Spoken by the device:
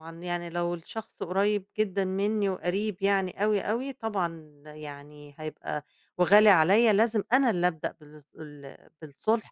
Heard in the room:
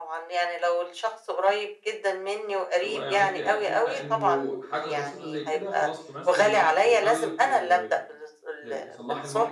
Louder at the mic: echo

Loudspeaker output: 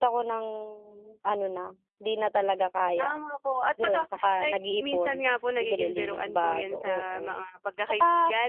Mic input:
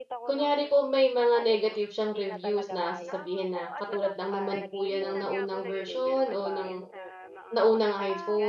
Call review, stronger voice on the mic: user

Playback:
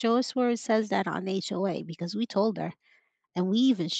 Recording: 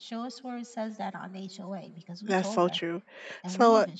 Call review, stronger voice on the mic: user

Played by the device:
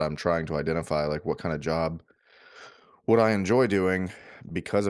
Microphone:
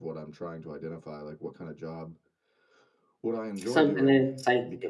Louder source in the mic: user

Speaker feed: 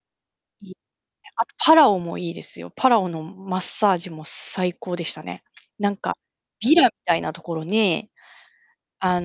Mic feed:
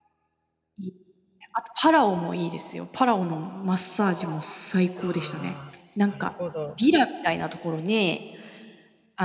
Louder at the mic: echo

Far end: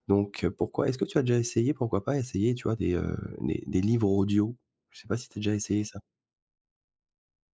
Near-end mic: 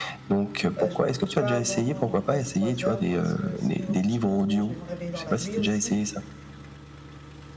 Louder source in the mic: echo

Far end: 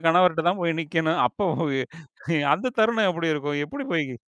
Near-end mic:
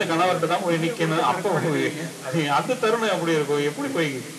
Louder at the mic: echo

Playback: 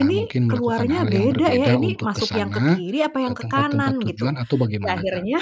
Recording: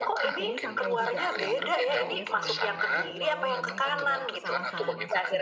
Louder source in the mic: echo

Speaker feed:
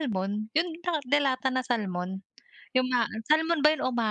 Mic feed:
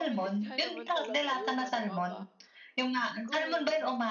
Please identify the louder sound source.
echo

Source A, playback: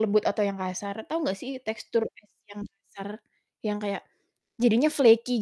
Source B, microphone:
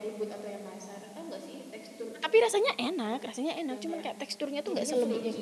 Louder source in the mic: user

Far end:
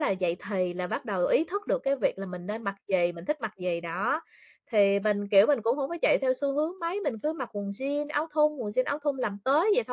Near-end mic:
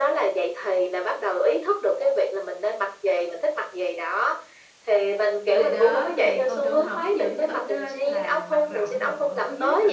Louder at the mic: echo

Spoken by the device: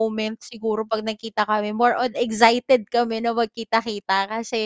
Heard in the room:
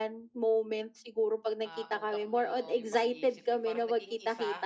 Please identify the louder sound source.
echo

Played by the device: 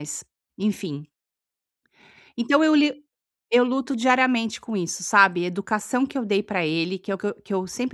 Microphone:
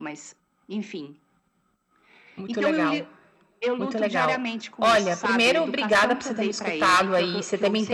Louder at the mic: user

